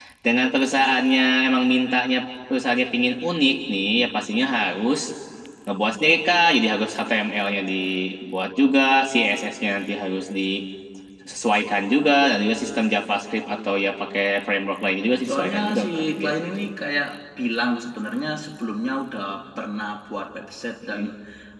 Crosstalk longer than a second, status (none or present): present